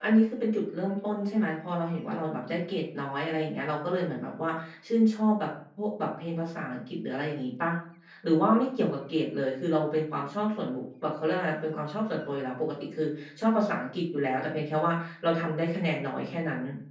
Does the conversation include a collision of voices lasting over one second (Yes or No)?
No